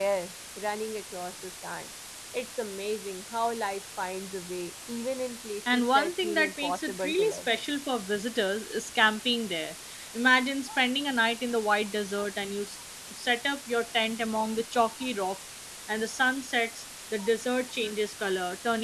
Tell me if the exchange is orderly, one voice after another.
No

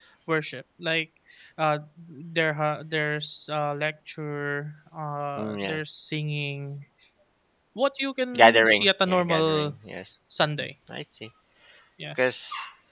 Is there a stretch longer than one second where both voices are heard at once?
Yes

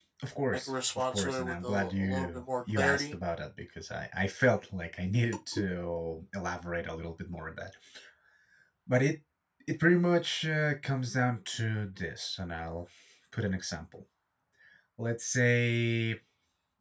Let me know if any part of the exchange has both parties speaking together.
Yes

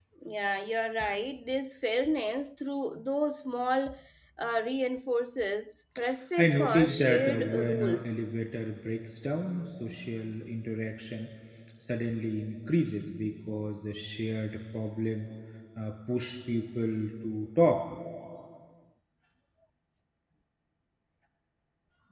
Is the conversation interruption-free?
No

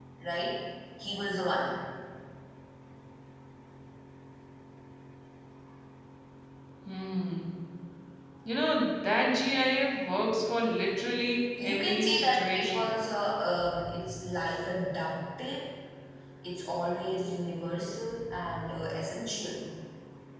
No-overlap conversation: No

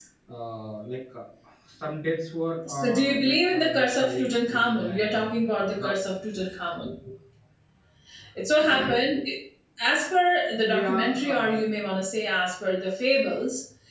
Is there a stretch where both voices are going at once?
Yes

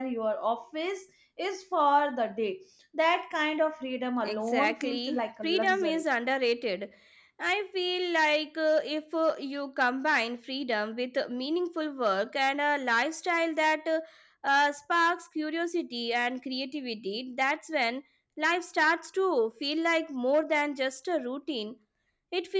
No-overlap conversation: No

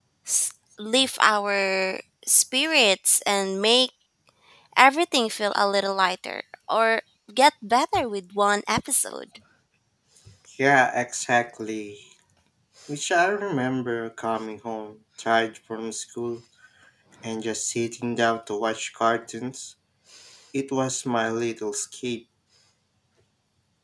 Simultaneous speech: No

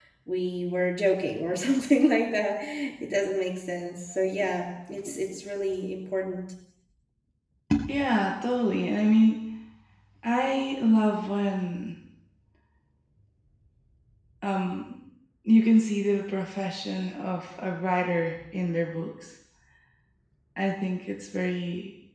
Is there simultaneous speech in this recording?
No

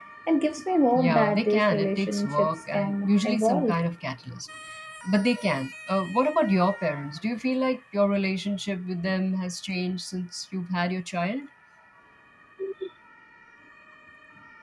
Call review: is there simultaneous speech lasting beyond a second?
Yes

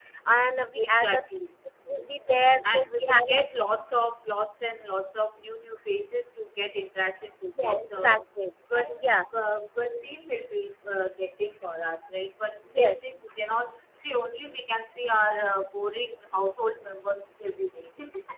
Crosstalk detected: Yes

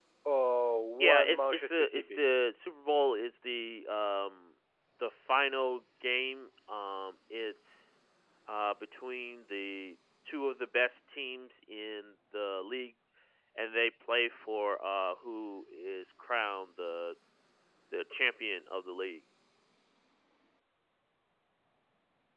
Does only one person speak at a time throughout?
No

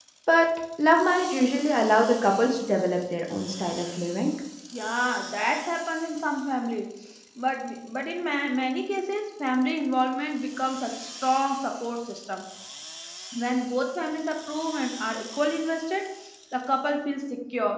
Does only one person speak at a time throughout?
Yes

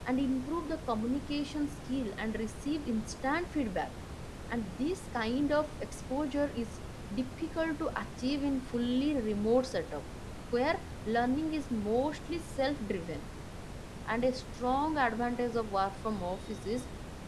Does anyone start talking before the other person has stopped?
No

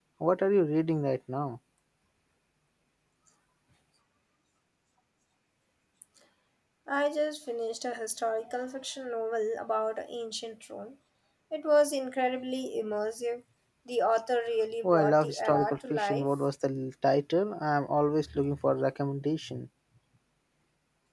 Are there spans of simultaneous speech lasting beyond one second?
Yes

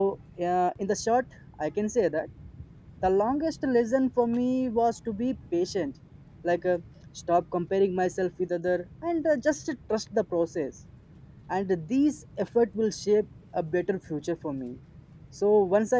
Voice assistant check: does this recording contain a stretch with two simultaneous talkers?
No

